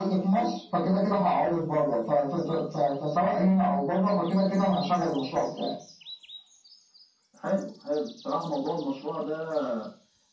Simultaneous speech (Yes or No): No